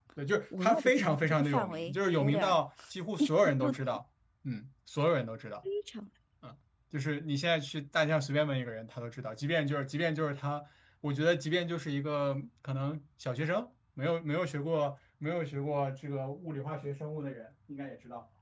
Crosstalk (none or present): present